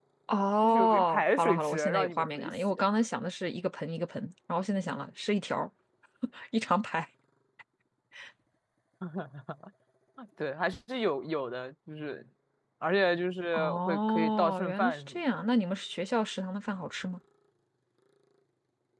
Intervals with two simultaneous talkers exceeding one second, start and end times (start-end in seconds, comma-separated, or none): 0.6-2.7, 13.5-15.1